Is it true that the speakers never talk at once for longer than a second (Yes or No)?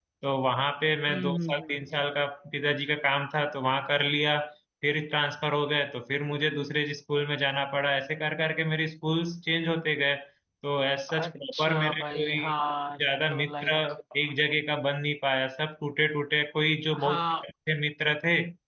No